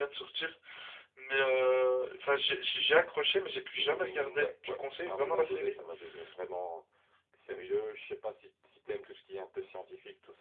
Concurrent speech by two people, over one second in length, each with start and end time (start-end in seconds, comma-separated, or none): 3.8-5.8